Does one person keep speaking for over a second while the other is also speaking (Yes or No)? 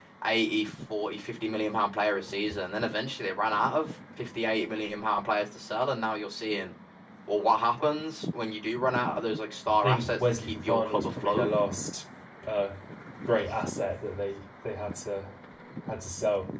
Yes